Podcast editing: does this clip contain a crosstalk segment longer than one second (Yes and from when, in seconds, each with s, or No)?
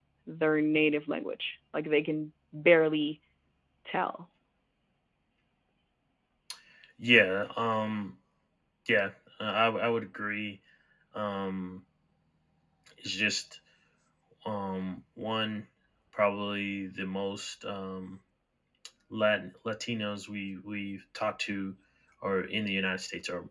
No